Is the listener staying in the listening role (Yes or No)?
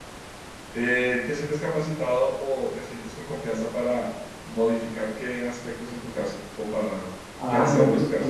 No